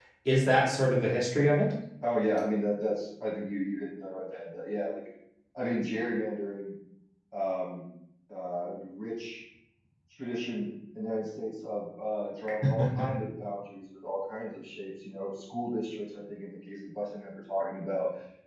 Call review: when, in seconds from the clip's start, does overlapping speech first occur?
none

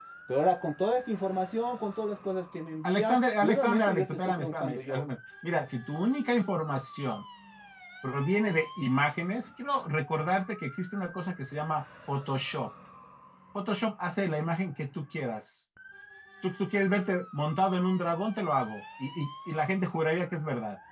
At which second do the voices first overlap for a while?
3 s

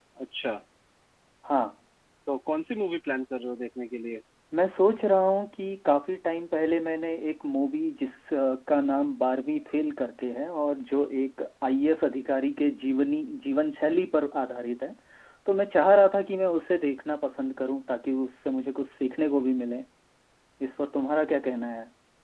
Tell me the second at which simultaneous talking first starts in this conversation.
none

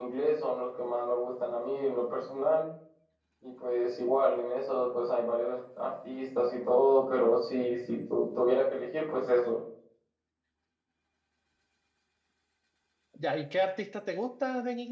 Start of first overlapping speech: none

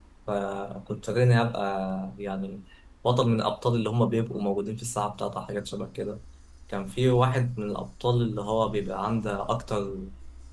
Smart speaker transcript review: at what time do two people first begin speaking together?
none

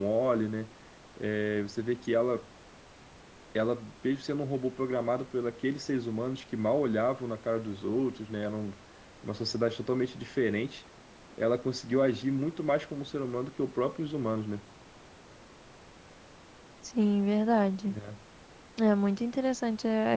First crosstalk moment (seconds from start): none

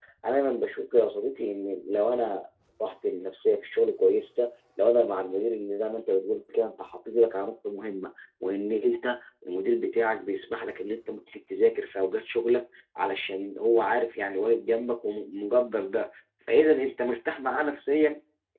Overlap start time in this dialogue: none

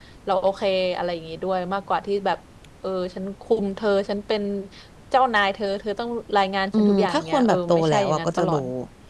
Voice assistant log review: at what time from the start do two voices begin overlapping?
7 s

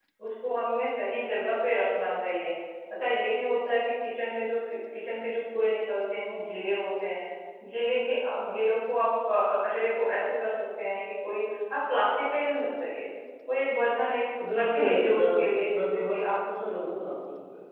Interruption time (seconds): 14 s

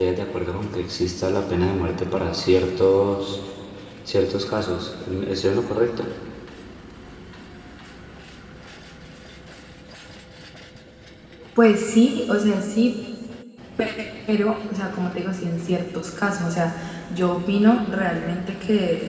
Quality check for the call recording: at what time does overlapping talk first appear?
none

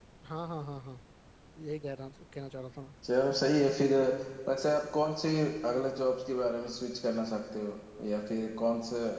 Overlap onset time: none

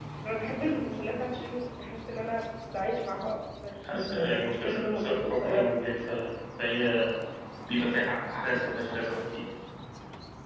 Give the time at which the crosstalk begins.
4 s

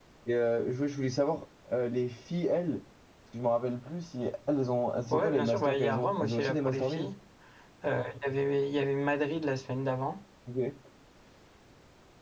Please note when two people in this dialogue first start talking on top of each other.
5 s

